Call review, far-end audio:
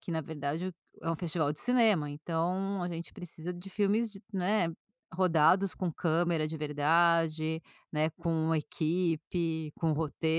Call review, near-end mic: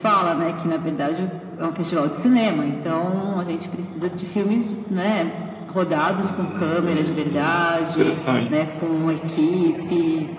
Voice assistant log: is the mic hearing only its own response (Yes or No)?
No